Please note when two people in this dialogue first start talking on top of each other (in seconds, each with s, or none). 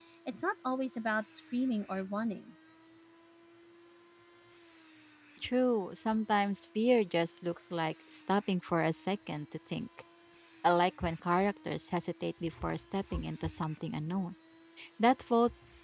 none